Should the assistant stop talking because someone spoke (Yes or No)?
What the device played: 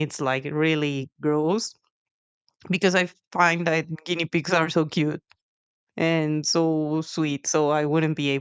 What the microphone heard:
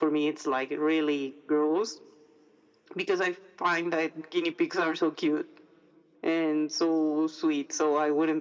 No